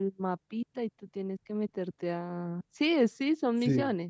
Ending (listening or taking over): taking over